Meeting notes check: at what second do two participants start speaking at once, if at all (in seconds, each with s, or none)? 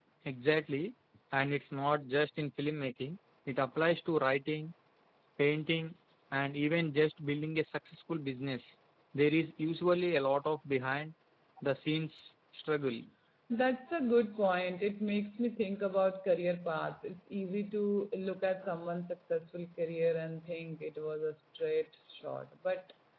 none